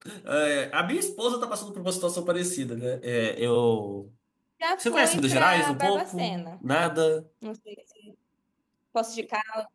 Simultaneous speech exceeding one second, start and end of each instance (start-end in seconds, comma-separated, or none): 4.8-6.5